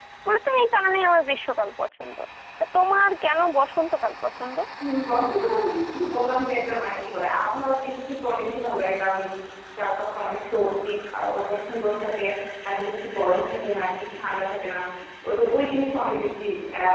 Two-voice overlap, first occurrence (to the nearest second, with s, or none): none